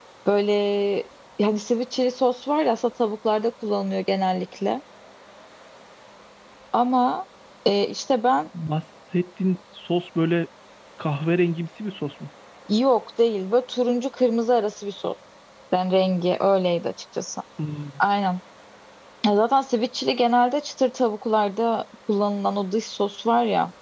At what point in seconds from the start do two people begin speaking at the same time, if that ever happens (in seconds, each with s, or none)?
none